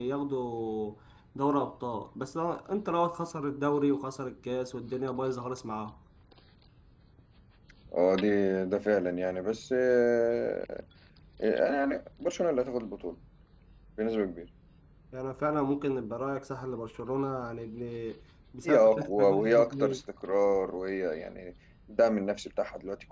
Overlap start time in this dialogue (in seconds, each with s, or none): 18.6 s